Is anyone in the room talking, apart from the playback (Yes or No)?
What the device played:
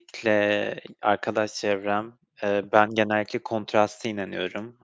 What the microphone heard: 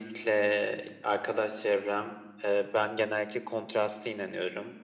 No